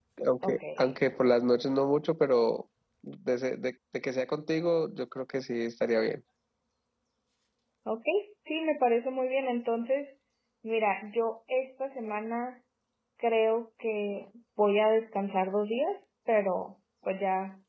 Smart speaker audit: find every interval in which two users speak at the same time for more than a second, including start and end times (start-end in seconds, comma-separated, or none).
none